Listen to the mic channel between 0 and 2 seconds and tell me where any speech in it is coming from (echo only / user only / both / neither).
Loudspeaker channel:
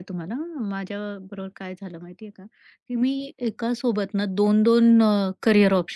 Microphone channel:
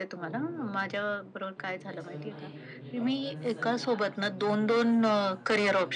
both